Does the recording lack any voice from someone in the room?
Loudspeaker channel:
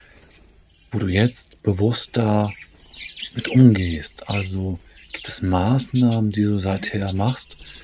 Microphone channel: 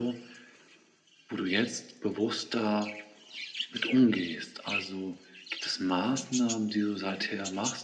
Yes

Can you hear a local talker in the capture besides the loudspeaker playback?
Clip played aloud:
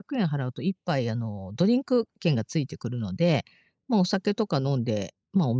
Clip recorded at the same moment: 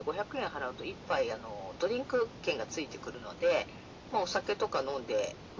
No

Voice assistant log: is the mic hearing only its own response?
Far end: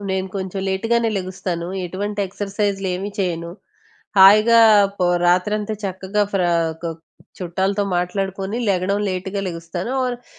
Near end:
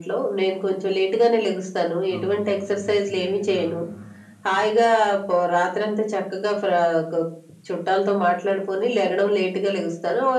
No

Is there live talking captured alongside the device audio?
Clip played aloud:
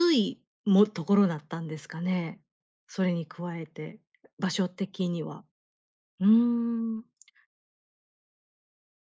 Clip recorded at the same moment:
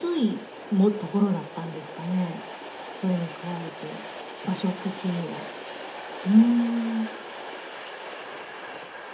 No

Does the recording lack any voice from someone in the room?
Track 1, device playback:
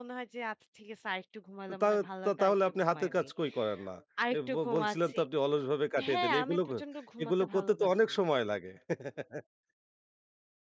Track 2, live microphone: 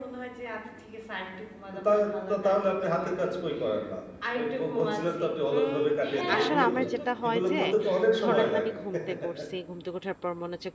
No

